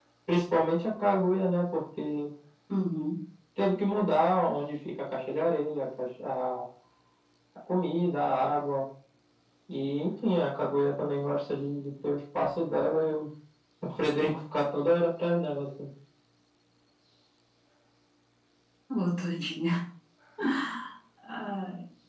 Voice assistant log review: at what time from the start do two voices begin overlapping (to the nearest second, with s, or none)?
none